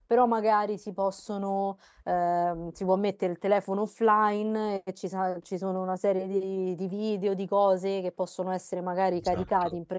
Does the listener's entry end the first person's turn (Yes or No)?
No